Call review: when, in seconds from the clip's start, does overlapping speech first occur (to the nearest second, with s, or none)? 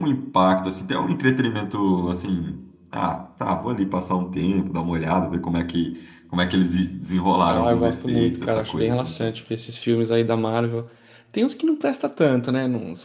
7 s